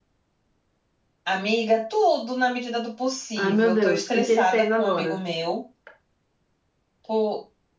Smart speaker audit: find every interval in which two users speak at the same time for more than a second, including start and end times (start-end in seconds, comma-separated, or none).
3.4-5.2